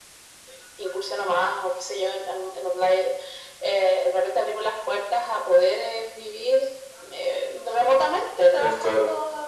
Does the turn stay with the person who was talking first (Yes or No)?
Yes